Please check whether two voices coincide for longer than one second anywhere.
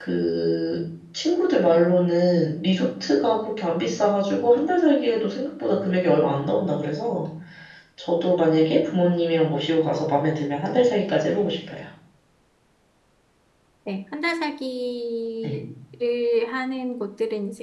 No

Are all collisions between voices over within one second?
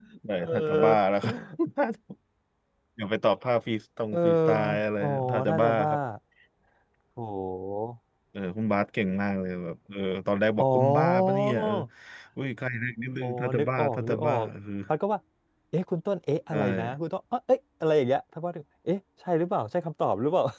No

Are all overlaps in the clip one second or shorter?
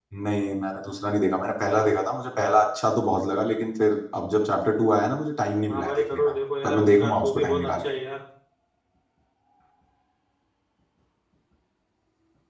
No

